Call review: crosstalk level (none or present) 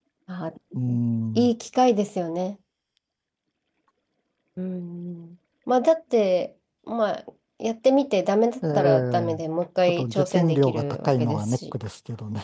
present